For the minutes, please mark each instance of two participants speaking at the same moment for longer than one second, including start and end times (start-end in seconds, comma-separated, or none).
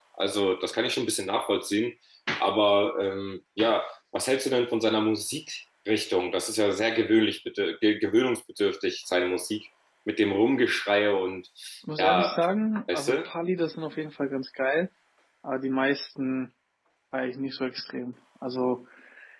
none